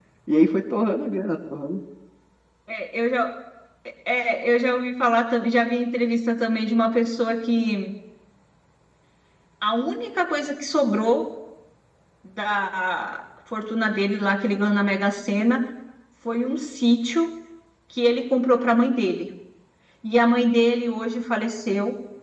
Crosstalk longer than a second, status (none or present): none